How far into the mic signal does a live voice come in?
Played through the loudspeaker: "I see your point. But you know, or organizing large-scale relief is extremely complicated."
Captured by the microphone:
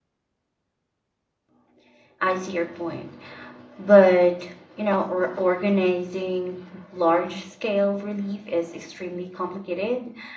none

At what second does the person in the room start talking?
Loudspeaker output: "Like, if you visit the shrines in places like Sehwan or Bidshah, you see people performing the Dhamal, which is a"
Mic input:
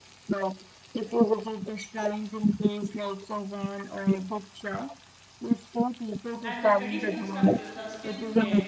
6.4 s

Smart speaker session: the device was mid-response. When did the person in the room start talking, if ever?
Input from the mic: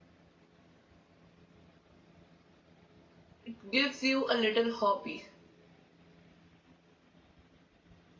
3.4 s

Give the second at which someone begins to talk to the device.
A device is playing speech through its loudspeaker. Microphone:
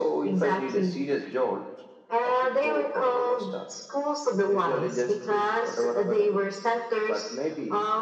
none

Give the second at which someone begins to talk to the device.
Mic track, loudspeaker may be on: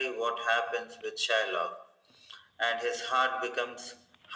none

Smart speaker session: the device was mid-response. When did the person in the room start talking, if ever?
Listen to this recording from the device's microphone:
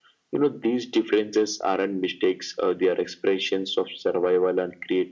none

